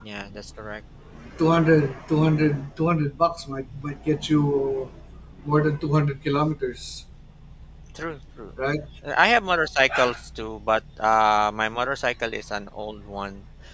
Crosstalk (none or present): none